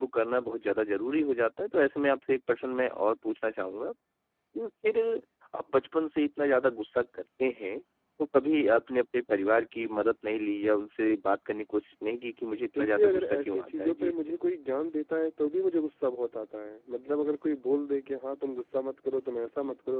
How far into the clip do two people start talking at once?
12.6 s

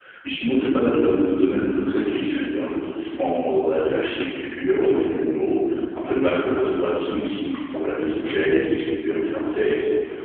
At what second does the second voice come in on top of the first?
none

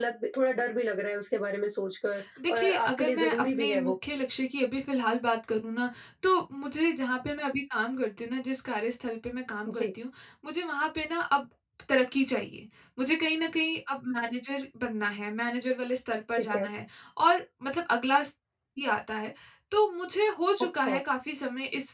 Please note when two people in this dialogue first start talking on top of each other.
2.5 s

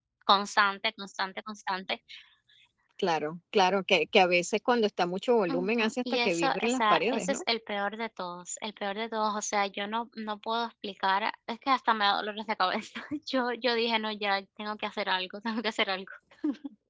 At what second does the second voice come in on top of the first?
5.5 s

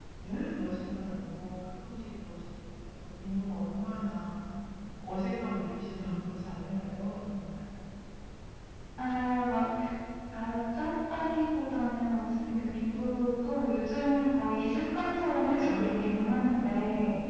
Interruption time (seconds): 15.5 s

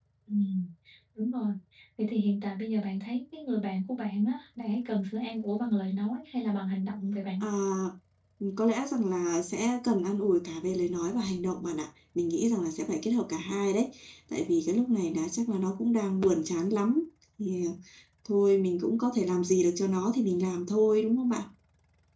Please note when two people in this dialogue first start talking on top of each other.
none

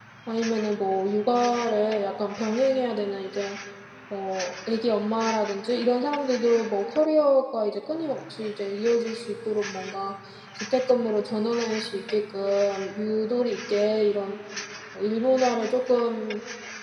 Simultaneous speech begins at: none

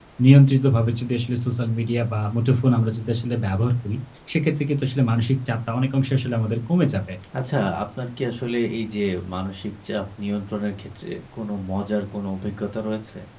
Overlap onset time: none

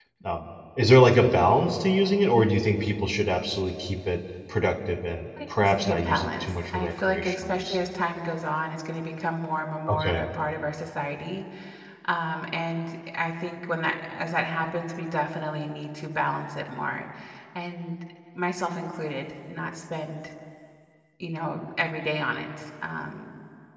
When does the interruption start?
5.6 s

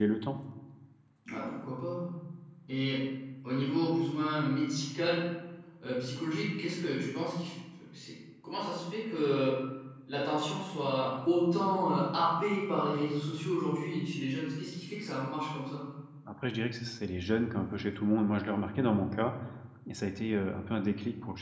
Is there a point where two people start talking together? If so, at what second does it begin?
none

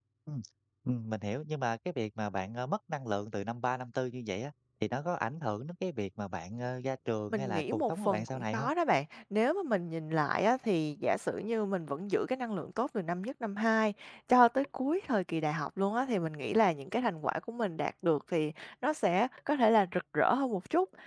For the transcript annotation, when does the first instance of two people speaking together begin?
7.3 s

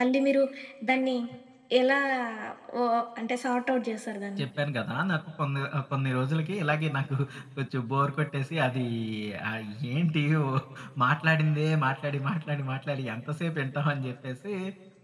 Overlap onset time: none

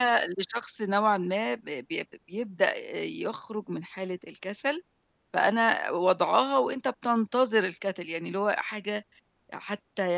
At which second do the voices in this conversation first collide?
none

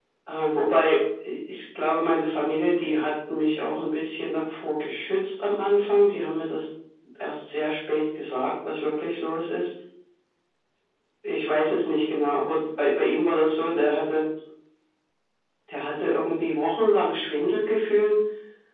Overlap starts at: none

